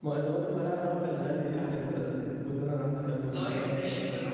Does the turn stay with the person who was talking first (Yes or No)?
No